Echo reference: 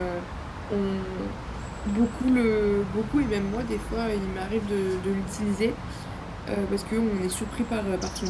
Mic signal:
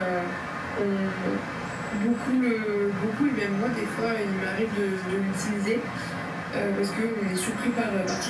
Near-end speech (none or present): none